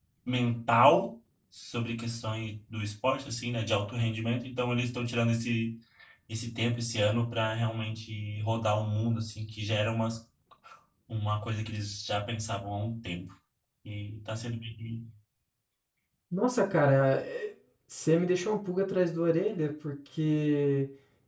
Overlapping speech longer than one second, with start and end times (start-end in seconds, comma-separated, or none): none